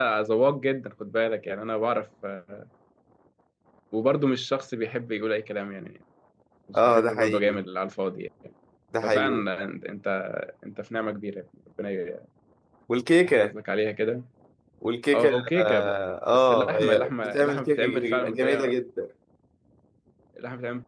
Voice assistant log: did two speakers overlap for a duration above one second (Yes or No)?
Yes